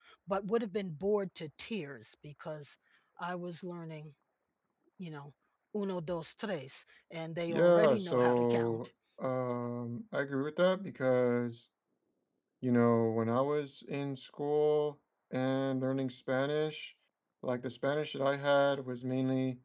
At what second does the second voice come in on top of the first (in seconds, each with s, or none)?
7.5 s